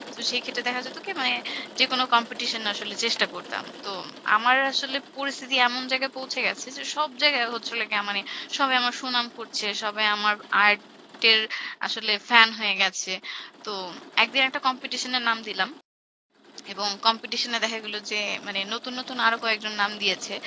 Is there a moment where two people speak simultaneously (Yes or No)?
No